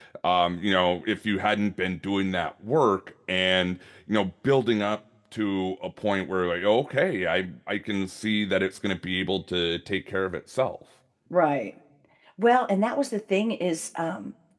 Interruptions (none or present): none